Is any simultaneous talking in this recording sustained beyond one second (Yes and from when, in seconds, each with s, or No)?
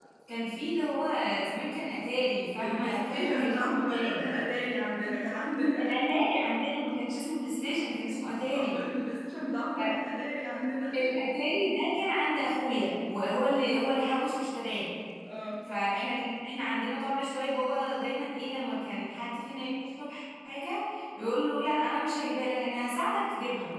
Yes, from 2.6 s